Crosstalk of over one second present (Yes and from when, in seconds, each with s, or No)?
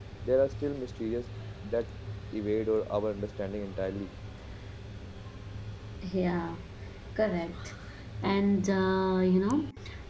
No